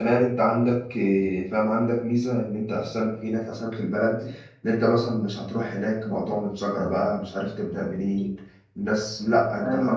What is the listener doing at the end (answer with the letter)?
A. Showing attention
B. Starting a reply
B